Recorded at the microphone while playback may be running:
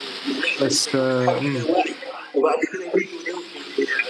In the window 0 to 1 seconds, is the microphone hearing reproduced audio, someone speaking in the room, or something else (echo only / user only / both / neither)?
both